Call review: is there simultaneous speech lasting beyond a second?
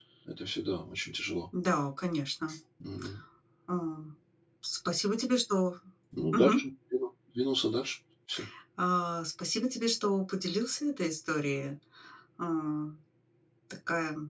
No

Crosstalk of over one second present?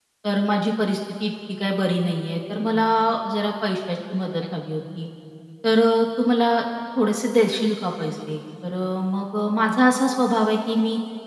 No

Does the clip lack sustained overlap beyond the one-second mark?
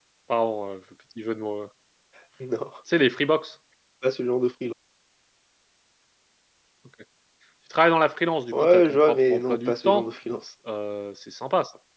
No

